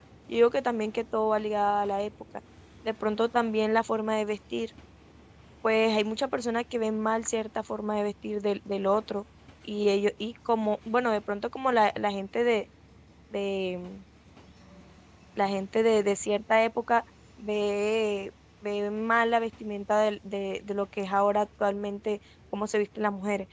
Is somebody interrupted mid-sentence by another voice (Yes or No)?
No